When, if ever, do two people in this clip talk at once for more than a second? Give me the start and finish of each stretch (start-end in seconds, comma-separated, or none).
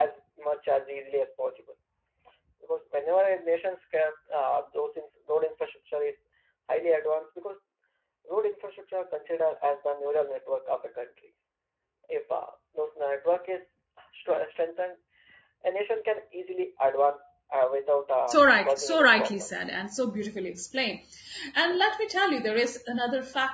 18.3-19.5